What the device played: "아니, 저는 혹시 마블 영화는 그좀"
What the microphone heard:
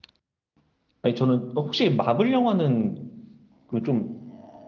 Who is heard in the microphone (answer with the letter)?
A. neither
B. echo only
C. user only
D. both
B